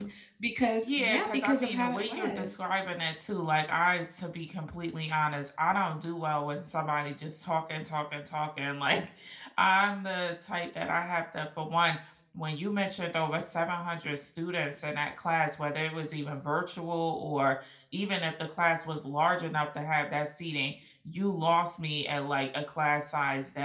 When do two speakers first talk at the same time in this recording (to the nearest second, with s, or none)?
1 s